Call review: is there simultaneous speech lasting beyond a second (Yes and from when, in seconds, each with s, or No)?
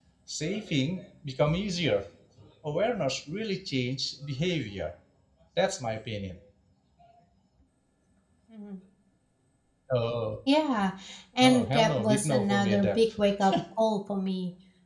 Yes, from 11.4 s